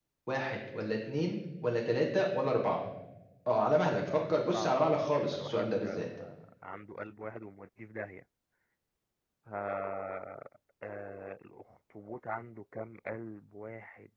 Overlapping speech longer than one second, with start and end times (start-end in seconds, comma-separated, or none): 4.1-6.1